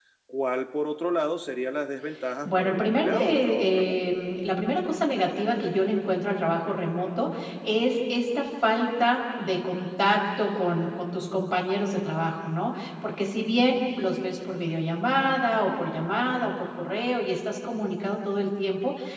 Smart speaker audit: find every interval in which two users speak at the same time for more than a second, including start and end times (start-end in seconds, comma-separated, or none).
2.4-3.9